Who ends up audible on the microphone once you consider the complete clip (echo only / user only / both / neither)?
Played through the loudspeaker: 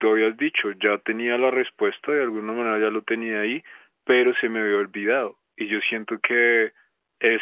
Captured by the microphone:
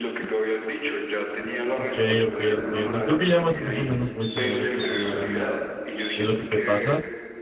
both